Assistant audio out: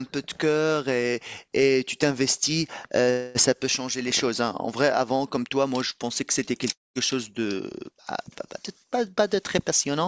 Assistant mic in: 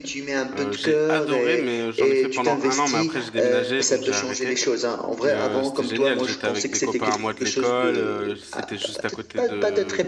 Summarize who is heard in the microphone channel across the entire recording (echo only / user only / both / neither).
both